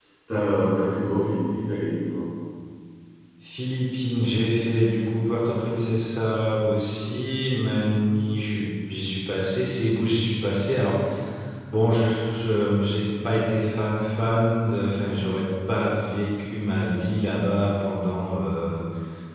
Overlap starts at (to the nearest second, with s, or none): none